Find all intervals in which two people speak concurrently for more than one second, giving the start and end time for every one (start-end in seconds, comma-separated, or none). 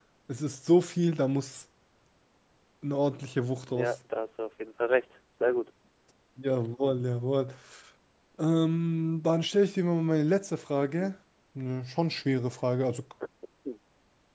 none